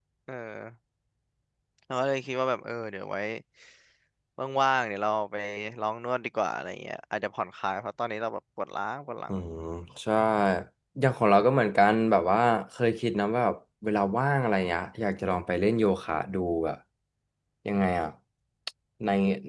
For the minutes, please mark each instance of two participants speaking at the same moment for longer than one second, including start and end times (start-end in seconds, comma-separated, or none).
none